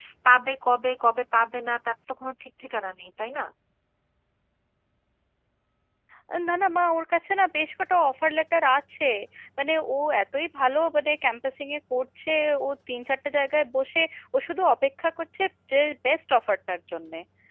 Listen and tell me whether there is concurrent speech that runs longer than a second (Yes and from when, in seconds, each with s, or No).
No